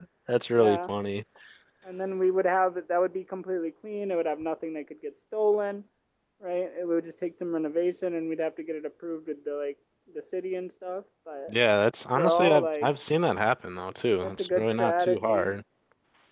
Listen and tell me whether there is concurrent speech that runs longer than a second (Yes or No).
Yes